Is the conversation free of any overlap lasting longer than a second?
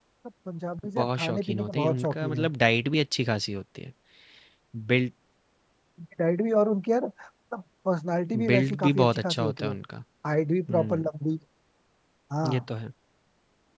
No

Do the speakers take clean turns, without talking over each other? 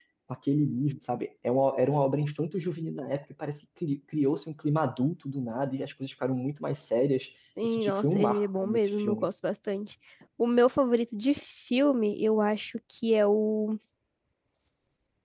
No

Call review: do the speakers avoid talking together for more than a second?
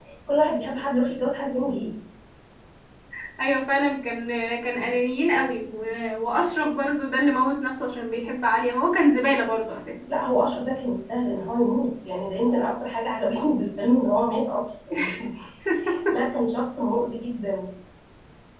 Yes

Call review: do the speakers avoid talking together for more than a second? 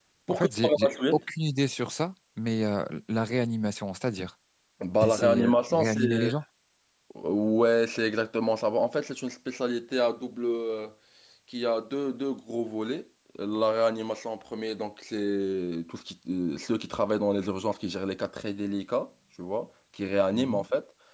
No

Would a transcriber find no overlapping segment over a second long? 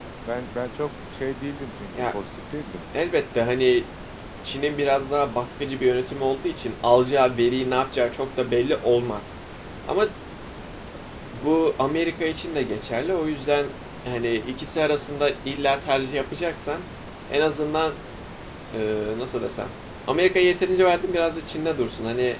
Yes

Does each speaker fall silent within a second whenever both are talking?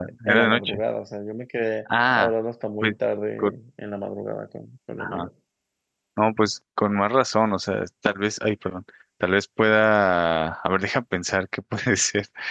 Yes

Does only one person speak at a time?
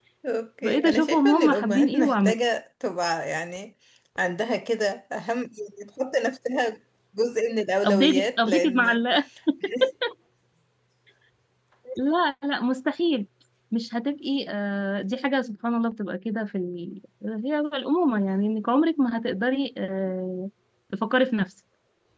No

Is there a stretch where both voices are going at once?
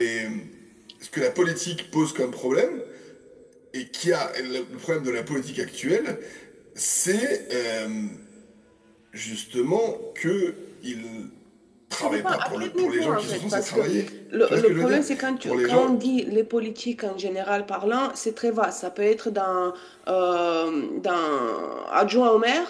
Yes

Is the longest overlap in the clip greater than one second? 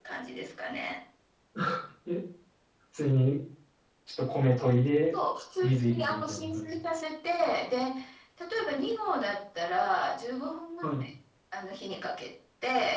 Yes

